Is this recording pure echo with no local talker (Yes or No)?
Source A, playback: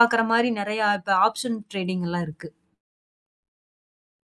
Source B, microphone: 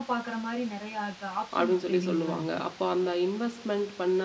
No